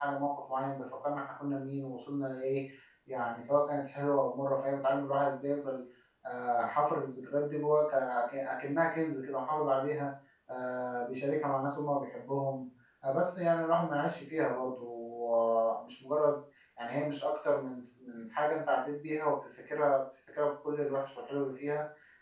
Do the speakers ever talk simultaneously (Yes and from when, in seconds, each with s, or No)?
No